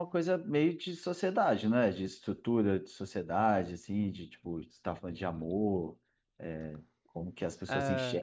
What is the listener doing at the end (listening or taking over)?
taking over